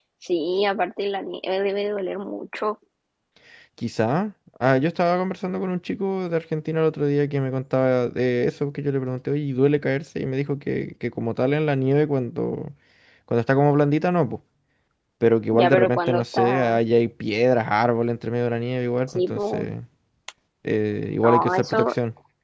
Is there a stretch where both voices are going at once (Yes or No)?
Yes